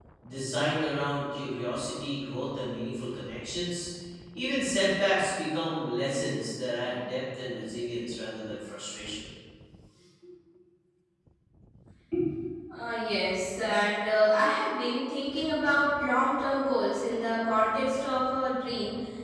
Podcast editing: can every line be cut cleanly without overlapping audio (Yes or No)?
Yes